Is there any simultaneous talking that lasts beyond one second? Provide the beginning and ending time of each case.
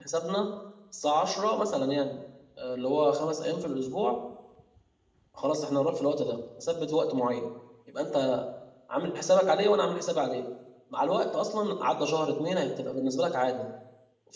none

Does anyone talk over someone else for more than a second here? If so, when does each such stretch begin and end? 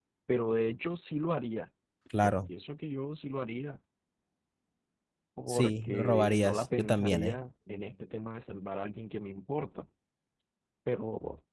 5.5-7.4

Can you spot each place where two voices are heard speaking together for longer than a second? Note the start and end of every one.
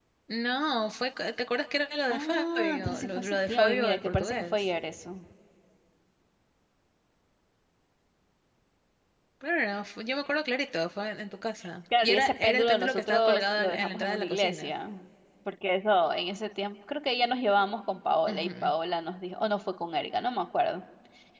2.1-4.6, 12.0-14.7

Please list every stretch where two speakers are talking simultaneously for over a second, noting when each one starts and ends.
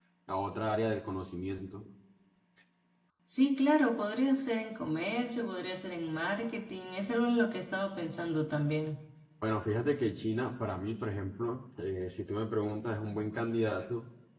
none

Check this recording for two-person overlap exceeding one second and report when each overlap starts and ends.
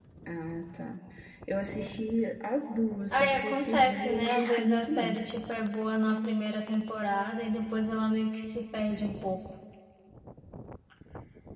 3.1-5.2

